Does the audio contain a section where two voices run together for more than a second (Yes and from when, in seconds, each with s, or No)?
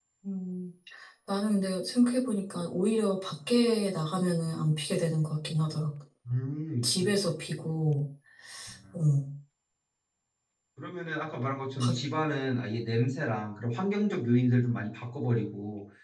No